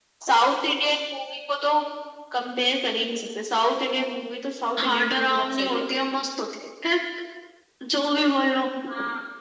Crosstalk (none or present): present